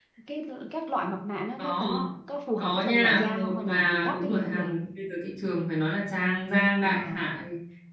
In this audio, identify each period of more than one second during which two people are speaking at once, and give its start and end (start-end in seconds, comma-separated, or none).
2.6-4.7